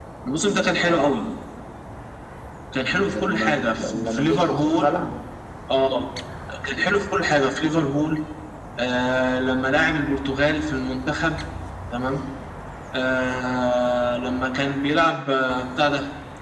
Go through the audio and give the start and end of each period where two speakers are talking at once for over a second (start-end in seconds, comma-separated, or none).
3.1-4.9